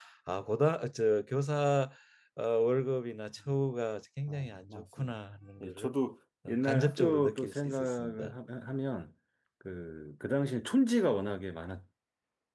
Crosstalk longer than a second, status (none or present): present